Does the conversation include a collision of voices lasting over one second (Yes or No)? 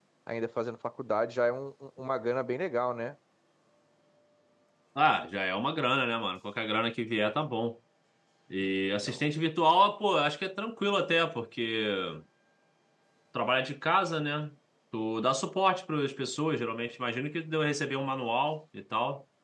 No